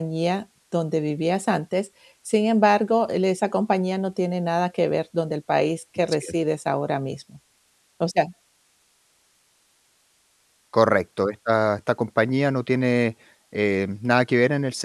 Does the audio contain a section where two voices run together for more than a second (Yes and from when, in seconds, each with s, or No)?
No